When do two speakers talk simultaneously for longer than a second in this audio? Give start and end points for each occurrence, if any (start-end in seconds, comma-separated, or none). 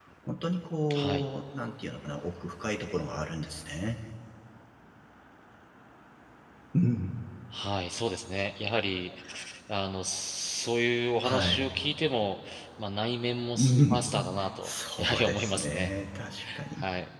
14.6-15.9